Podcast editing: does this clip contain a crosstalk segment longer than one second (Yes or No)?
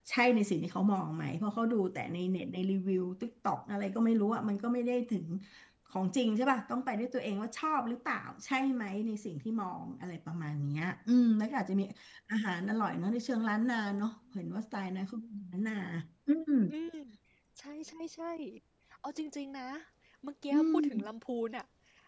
No